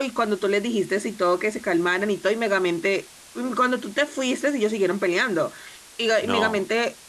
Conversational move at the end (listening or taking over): listening